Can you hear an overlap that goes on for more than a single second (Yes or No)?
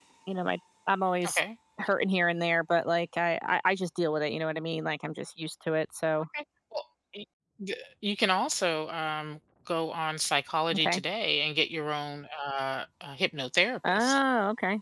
No